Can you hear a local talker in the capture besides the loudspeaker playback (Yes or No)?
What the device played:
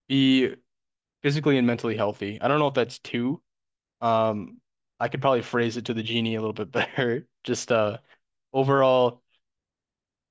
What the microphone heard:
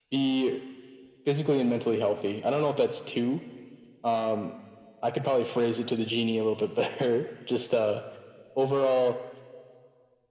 No